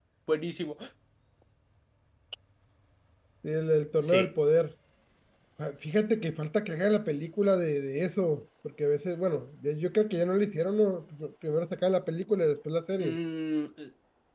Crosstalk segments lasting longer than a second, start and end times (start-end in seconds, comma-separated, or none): none